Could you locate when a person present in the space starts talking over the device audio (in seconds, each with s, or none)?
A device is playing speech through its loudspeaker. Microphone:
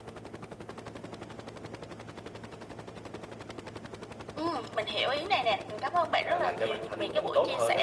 6.2 s